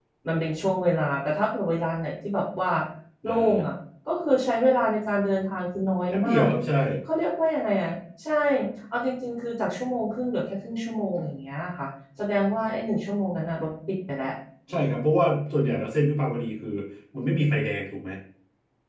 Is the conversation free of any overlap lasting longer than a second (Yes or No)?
Yes